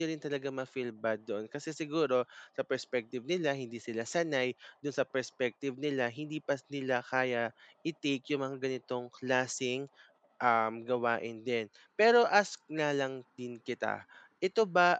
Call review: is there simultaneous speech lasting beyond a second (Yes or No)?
No